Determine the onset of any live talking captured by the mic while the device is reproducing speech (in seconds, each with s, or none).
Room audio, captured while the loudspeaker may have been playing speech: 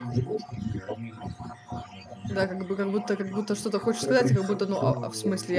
2.3 s